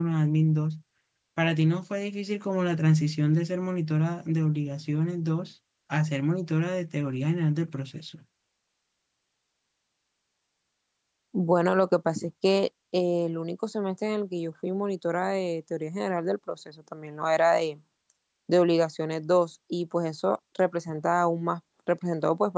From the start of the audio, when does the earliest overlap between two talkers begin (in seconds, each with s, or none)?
none